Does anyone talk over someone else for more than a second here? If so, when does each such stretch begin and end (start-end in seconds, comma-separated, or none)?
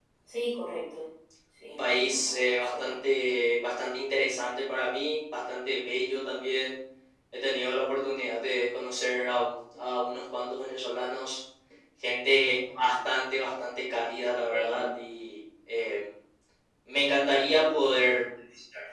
1.7-2.9